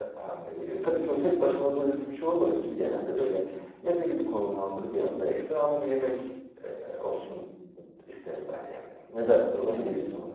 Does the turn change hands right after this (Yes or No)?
Yes